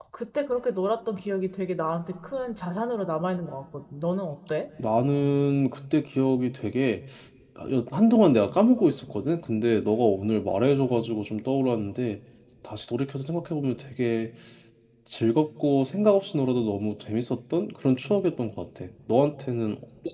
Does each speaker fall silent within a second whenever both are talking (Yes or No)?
Yes